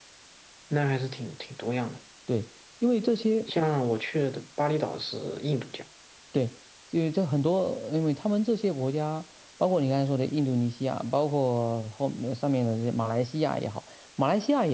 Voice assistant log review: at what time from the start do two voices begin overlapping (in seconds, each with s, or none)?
none